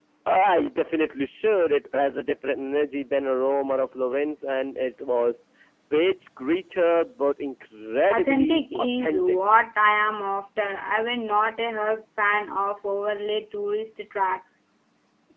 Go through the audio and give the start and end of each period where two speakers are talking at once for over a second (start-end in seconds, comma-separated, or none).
8.1-9.4